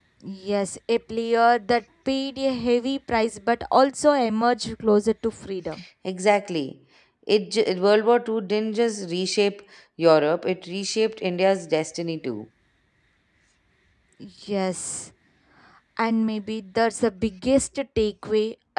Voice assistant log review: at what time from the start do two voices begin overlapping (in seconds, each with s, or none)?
none